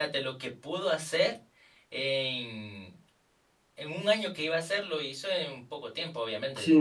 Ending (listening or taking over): taking over